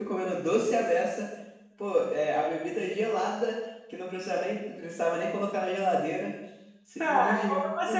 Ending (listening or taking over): taking over